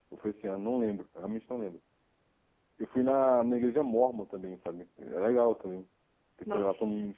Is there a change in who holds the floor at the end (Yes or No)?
Yes